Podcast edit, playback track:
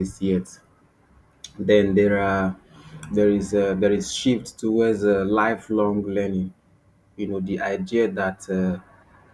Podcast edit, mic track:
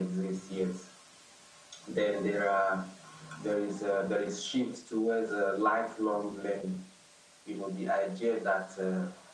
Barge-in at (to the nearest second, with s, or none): none